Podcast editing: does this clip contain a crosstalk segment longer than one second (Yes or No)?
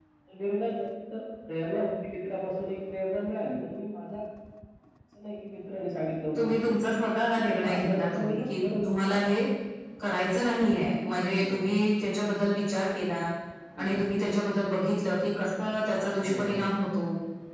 Yes